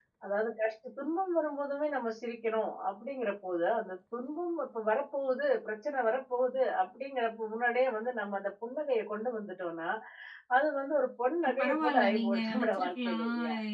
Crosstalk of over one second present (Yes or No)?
Yes